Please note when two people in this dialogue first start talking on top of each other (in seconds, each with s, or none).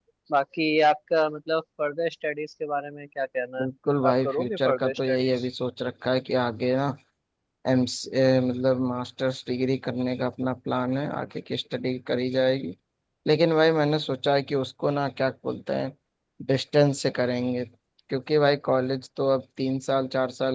4.1 s